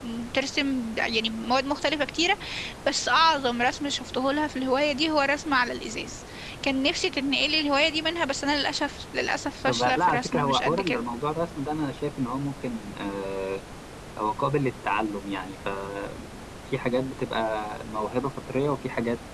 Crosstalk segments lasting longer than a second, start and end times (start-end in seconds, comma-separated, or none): 9.7-11.0